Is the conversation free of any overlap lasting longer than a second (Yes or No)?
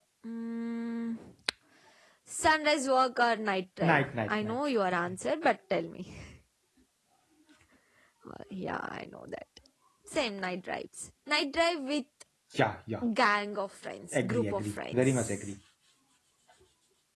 No